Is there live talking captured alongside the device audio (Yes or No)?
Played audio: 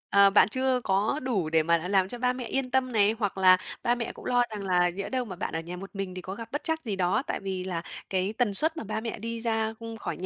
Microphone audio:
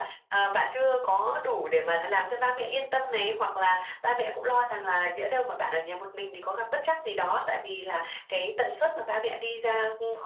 No